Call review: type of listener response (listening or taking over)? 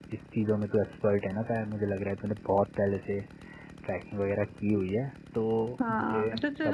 taking over